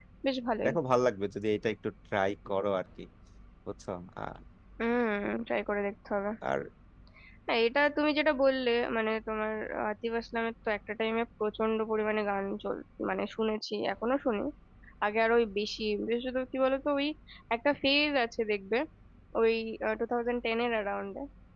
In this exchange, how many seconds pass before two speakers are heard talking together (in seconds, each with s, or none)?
none